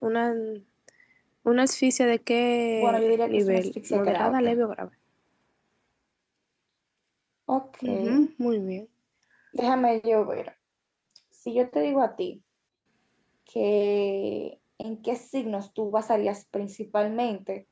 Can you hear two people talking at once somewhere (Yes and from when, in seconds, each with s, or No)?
Yes, from 2.8 s